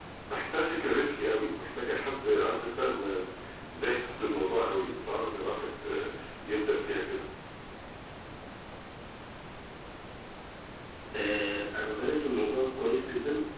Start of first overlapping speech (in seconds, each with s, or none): none